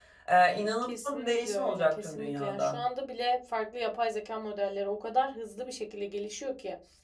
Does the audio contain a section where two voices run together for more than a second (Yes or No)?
Yes